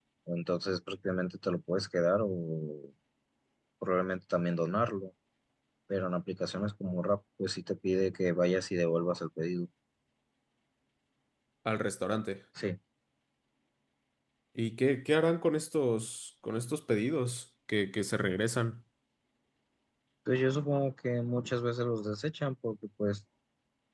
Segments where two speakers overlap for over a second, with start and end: none

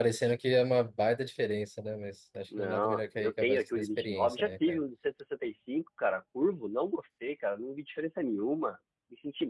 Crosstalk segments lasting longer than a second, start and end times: 2.6-4.8

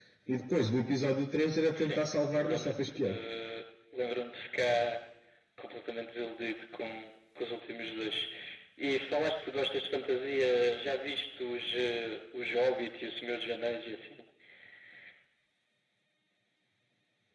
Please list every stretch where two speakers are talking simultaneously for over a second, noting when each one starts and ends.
1.7-3.1

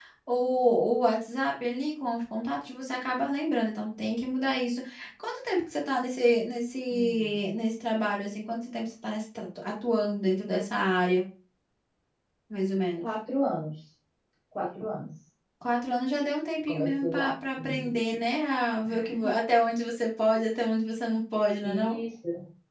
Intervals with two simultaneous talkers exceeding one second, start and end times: 16.7-17.9

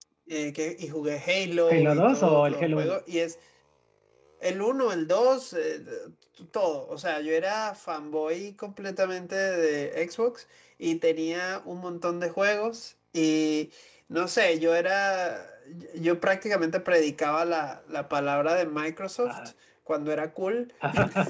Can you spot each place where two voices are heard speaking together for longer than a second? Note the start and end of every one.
1.7-3.0

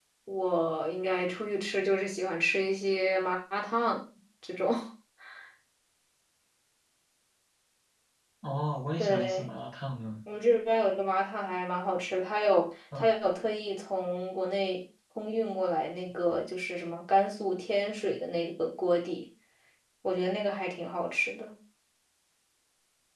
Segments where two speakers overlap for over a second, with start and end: none

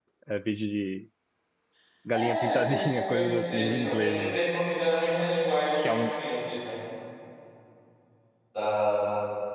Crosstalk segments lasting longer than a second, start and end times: 2.1-4.4

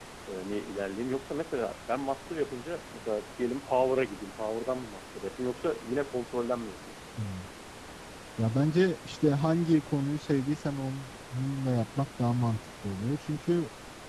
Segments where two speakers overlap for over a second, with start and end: none

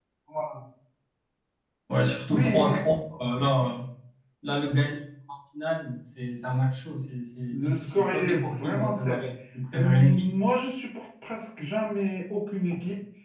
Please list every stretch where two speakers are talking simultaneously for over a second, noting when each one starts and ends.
7.5-9.3

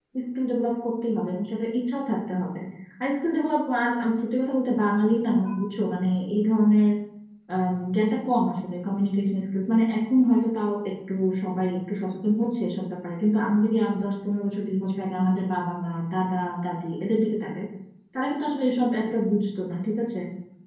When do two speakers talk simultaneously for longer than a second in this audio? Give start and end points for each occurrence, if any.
none

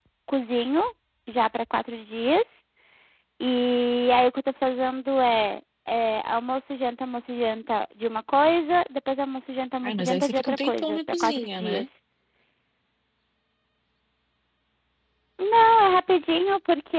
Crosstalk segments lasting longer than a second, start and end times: 9.8-11.8

